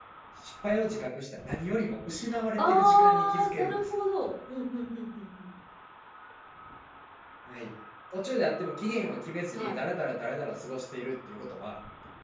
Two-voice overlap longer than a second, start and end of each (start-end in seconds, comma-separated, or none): 2.6-3.9